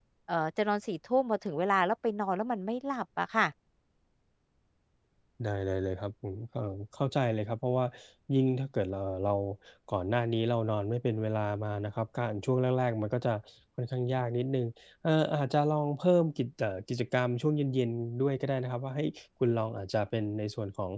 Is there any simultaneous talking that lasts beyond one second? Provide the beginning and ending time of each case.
none

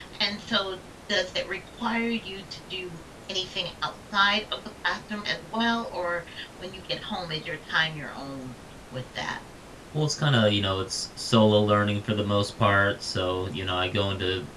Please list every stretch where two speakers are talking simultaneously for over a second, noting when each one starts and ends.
none

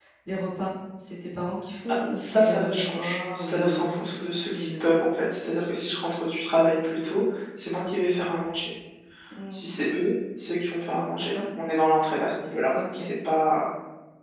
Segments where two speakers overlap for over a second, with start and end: 2.1-4.0

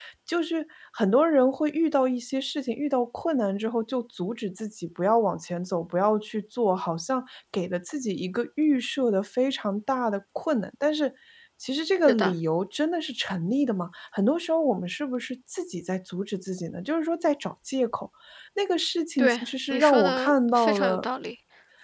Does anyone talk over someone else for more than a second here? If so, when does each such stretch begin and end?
19.2-21.0

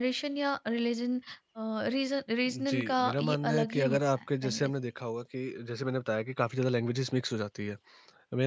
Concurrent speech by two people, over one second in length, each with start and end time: 2.5-4.7

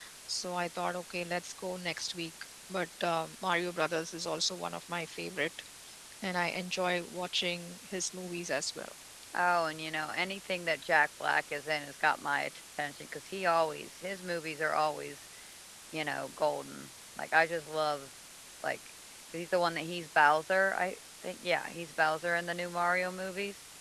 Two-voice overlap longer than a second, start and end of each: none

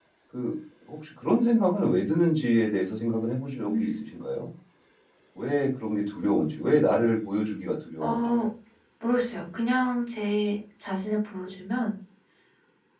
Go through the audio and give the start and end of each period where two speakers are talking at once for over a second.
none

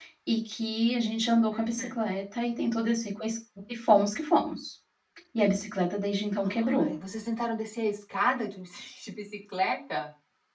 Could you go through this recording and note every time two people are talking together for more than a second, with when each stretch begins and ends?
none

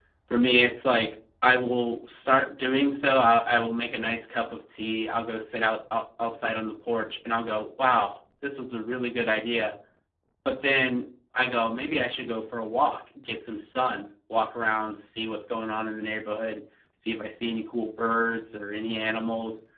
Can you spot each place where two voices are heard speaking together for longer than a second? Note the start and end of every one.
none

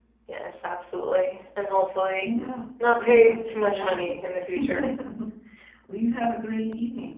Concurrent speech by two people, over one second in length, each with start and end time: 2.9-4.2

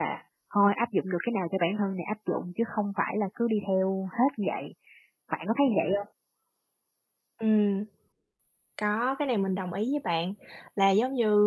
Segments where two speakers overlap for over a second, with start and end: none

